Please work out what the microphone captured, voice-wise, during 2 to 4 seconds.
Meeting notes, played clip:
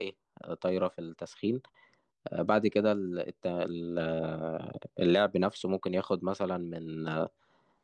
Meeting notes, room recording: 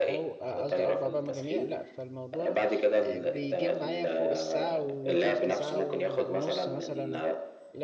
both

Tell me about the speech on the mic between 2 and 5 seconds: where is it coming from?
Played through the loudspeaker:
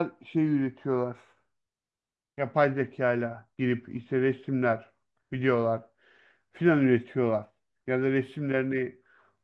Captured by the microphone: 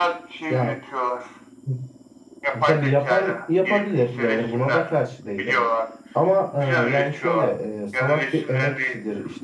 both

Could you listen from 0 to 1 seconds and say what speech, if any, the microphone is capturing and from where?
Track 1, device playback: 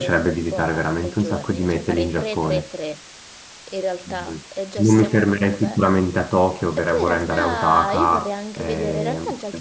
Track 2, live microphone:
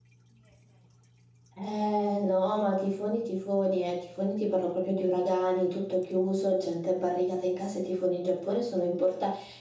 neither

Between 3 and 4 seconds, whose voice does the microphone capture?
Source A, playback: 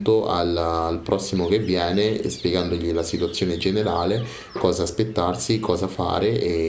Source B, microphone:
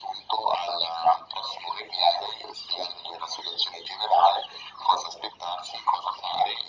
echo only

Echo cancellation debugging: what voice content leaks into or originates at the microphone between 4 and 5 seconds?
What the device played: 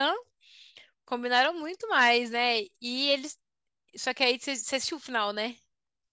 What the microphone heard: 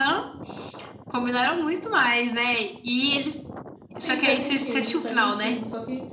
both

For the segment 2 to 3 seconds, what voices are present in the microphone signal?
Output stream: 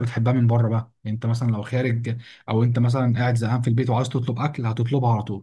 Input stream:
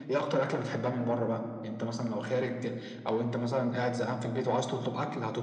echo only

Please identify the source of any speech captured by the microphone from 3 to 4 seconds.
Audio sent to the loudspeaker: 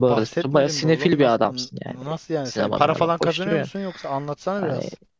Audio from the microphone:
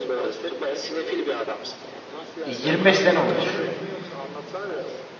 both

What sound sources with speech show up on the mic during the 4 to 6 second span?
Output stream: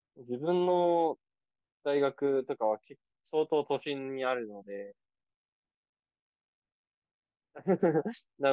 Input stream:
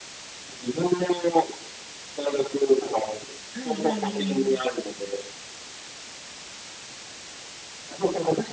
both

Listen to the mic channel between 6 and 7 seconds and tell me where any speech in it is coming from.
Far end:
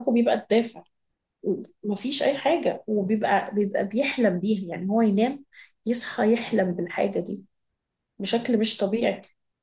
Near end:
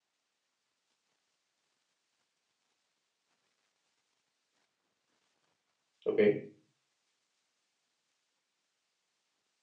user only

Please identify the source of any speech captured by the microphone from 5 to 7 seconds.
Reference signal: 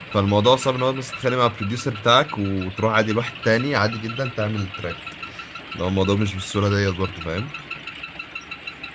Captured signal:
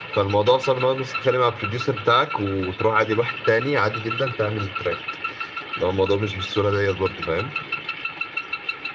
echo only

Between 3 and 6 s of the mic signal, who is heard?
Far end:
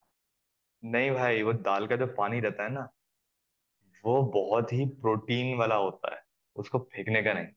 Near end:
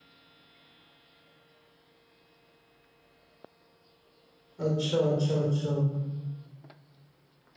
user only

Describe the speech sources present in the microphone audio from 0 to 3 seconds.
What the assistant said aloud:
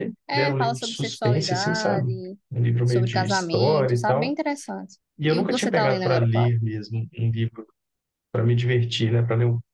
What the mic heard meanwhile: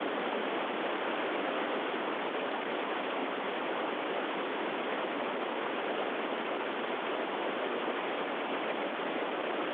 neither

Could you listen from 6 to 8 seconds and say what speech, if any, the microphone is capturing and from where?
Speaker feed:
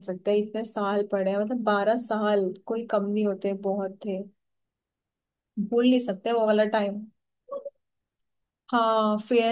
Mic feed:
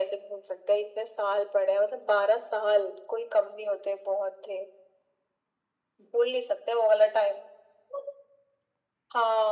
echo only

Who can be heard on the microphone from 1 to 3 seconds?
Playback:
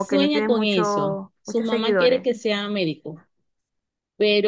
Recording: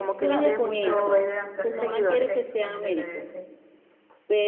both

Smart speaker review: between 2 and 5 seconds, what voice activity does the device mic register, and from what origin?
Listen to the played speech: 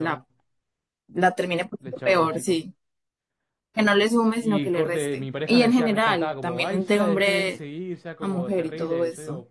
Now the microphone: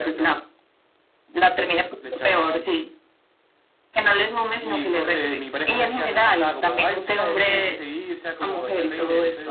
echo only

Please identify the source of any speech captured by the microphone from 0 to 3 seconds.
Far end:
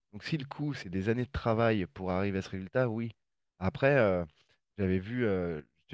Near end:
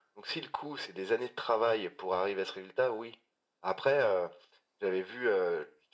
echo only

